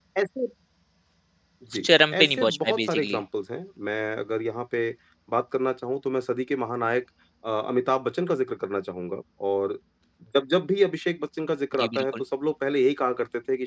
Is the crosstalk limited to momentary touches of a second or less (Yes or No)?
No